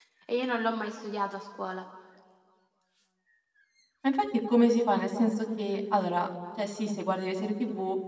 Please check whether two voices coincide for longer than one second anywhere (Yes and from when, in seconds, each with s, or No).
No